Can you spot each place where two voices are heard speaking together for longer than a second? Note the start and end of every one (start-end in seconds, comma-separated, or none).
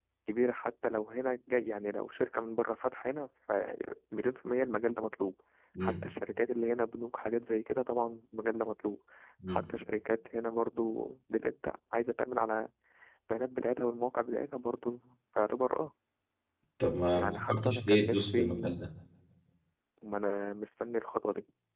17.2-18.8